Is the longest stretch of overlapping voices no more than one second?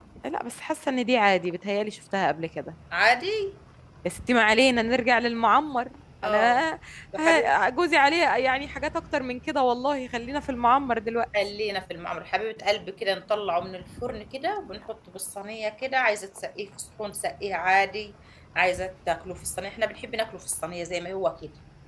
Yes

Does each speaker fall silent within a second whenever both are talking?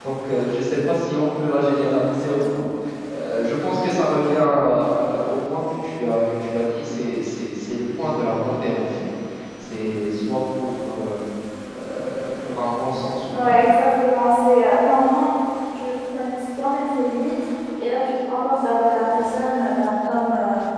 Yes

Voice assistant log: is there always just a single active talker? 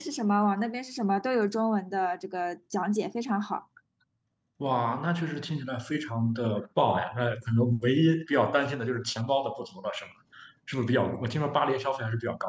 Yes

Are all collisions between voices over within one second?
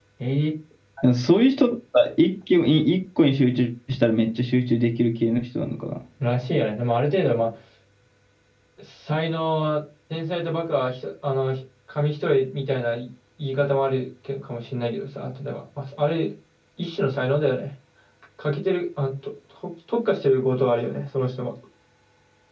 Yes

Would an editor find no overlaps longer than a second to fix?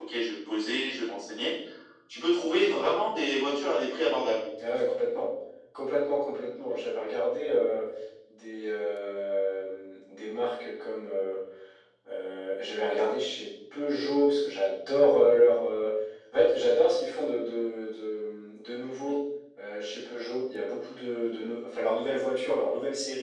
Yes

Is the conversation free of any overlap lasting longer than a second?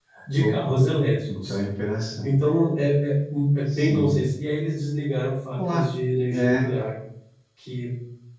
Yes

